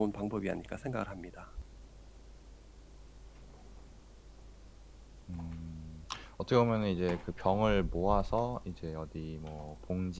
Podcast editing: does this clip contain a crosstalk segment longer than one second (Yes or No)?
No